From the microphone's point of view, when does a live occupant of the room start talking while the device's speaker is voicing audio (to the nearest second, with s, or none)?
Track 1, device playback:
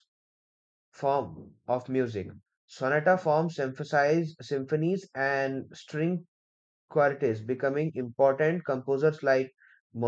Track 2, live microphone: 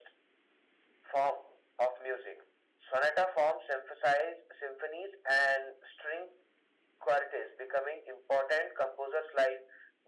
none